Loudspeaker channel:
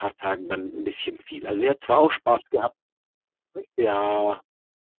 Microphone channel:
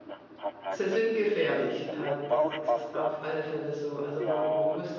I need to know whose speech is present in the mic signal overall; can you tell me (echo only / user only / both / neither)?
both